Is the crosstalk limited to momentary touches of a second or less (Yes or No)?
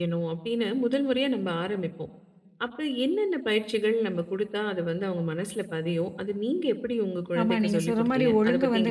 No